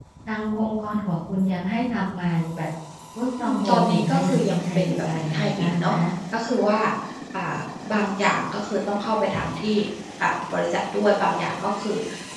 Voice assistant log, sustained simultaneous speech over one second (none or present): present